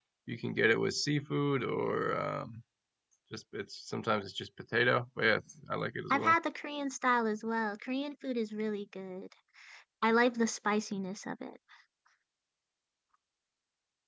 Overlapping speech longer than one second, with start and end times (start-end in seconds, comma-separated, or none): none